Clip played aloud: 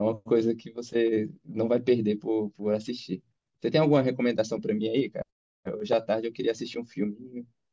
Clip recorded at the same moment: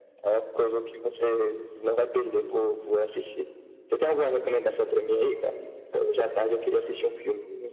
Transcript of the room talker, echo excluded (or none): none